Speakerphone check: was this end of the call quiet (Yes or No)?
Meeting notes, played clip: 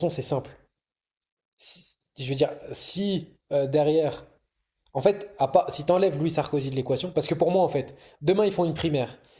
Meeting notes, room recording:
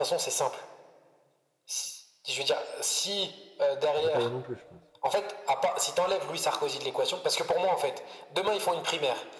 No